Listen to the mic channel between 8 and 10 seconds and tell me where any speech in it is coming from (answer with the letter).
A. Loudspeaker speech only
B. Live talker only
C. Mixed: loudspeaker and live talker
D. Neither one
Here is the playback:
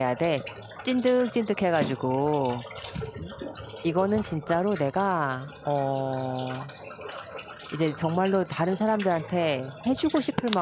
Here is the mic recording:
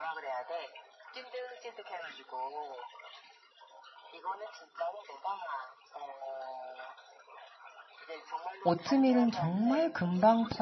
C